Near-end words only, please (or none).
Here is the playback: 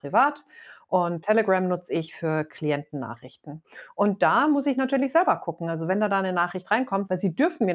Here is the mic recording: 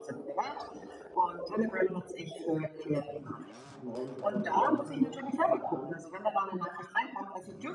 morgen sofort alles machen muss und kann.